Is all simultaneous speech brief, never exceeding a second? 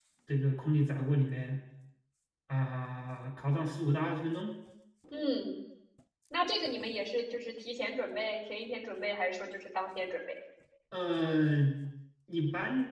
Yes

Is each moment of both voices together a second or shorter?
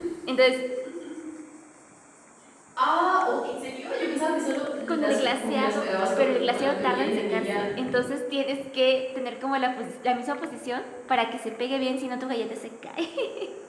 No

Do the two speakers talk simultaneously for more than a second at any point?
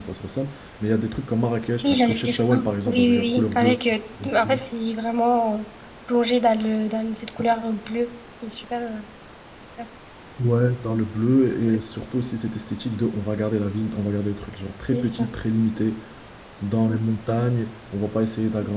Yes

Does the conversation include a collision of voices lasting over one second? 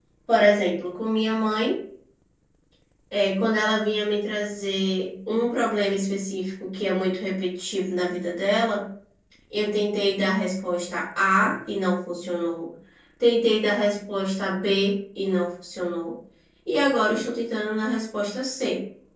No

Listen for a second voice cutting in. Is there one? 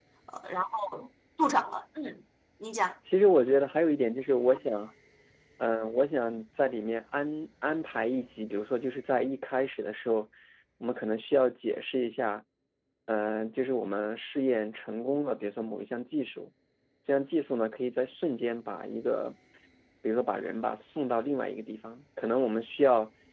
No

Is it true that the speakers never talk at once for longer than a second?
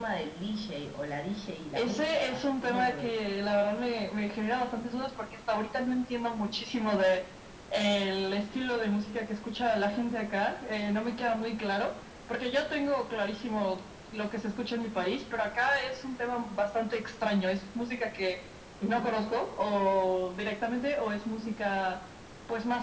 No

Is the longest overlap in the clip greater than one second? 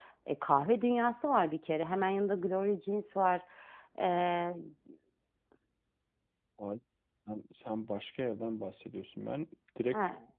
No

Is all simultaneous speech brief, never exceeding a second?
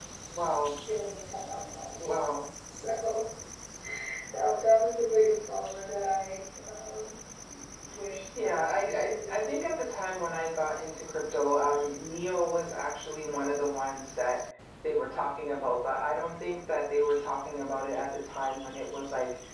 No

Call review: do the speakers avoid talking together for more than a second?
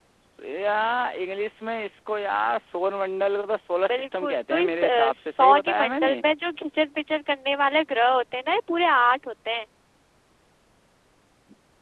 No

